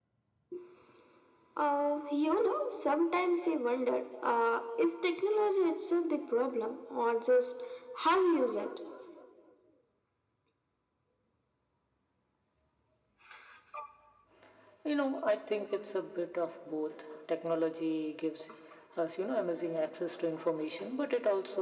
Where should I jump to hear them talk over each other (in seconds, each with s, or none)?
none